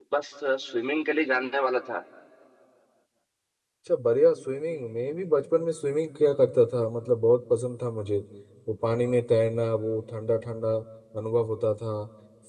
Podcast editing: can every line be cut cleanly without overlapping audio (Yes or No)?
Yes